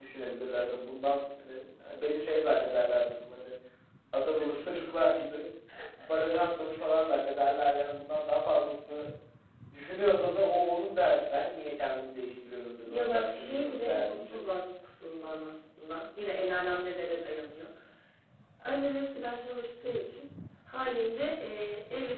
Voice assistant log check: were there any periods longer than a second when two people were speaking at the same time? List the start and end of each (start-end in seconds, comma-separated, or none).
12.8-14.4